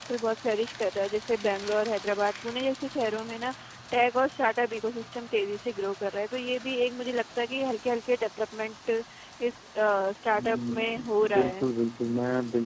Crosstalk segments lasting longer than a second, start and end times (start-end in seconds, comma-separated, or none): 10.3-11.7